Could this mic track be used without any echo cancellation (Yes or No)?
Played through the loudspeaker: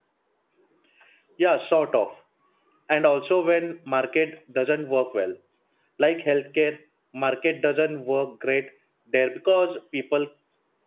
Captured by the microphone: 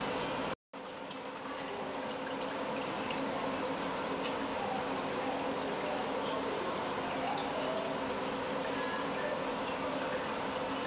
Yes